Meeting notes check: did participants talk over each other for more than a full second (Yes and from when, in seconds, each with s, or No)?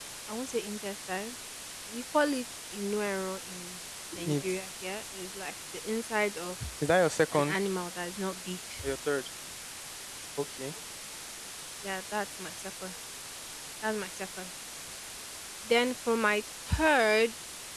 No